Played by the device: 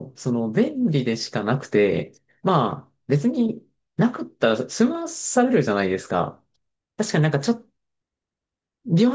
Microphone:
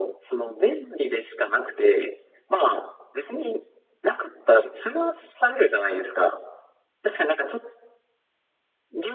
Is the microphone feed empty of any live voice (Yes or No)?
Yes